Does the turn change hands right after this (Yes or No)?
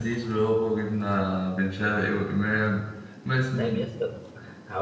Yes